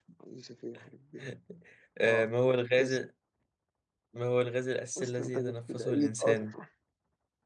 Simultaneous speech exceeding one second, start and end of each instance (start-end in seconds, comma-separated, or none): 5.0-6.5